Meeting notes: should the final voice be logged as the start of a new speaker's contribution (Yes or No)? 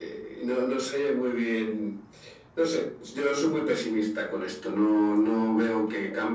No